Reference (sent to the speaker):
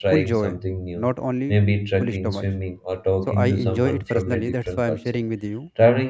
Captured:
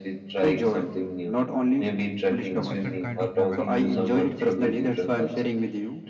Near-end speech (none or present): present